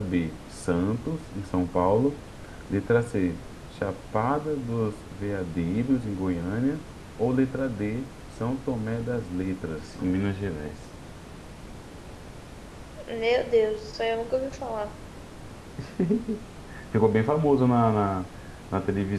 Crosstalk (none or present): none